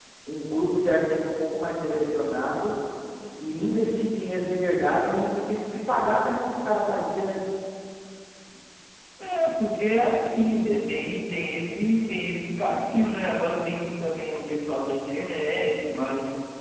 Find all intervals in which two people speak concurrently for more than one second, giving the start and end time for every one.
none

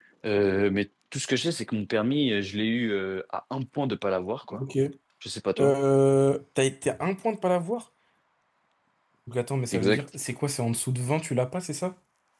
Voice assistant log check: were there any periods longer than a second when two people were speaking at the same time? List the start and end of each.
none

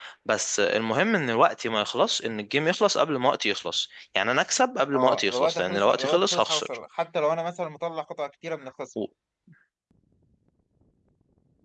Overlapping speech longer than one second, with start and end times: 5.0-6.7

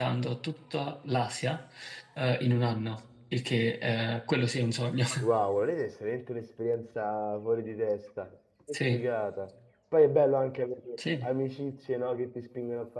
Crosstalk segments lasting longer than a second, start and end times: none

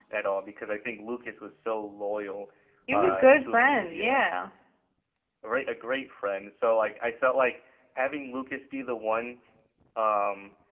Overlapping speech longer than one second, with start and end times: 2.9-4.2

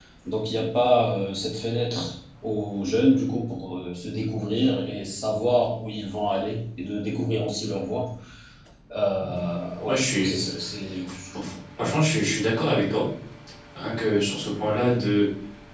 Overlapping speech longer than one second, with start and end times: none

